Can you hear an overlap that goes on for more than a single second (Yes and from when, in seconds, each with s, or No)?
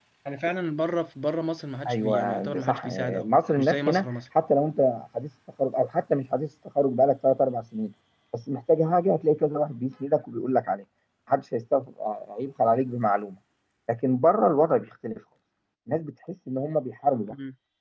Yes, from 1.9 s